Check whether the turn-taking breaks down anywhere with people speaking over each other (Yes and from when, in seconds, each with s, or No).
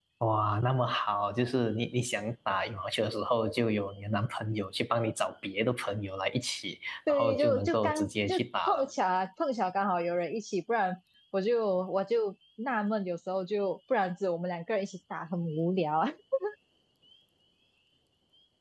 Yes, from 7.1 s